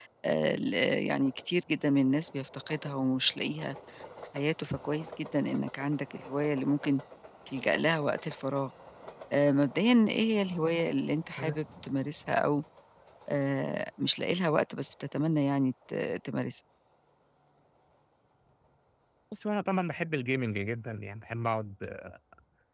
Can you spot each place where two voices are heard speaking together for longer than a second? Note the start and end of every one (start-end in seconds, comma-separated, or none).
none